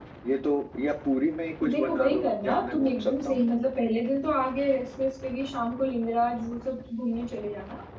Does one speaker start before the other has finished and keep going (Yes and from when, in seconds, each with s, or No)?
Yes, from 1.6 s